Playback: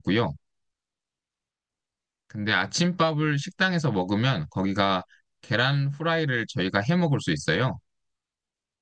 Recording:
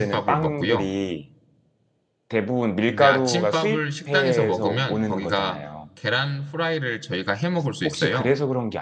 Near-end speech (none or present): present